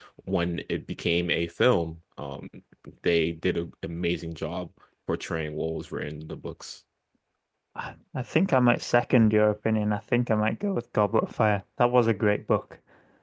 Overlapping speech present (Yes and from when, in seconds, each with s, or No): No